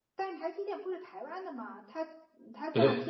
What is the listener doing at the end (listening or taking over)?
listening